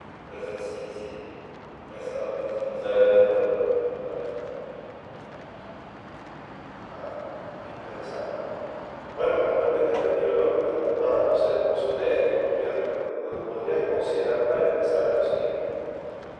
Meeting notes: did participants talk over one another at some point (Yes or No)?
No